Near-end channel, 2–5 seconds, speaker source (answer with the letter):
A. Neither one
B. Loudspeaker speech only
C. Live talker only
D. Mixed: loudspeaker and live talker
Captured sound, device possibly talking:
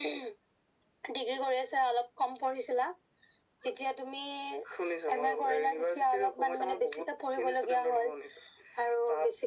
B